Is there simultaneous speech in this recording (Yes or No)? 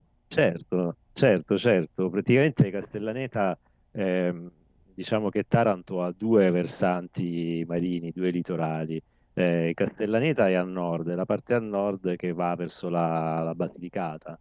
No